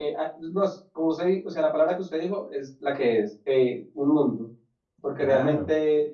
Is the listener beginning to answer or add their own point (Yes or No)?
No